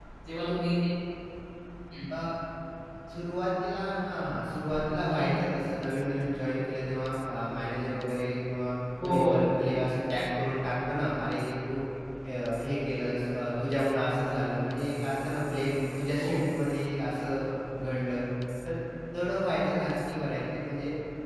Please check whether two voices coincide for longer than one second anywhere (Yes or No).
No